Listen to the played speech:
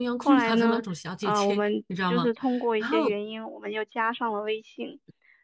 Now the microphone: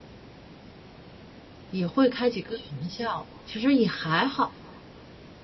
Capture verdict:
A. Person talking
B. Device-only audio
A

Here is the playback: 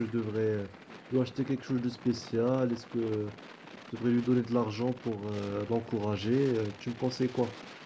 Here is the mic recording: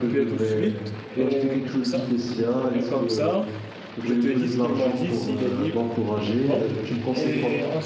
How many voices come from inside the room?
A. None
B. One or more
B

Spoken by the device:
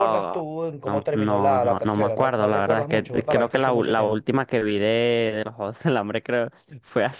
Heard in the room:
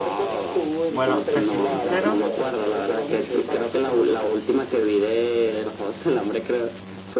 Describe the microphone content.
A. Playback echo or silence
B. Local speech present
B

